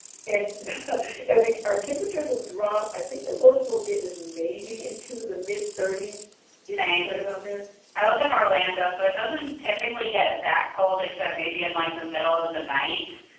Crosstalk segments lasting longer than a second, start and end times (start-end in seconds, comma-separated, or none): none